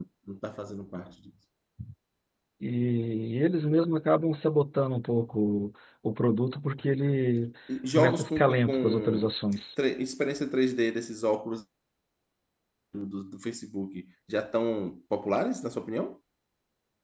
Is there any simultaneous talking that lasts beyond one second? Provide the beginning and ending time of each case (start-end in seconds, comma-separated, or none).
7.9-9.3